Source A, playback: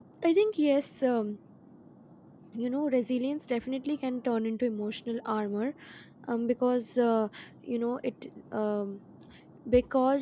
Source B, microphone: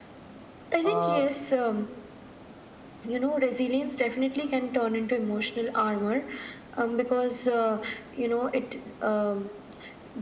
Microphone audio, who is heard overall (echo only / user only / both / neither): both